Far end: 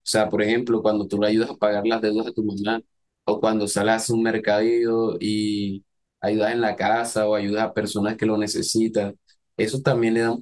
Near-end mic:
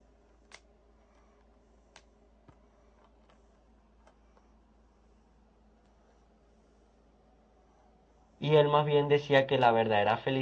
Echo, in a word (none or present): none